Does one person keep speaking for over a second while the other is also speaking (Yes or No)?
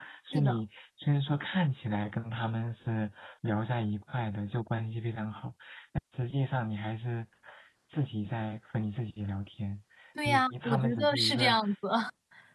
Yes